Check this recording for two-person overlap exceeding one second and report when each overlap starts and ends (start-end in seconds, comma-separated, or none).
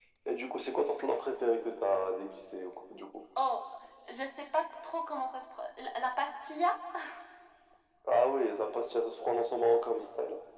none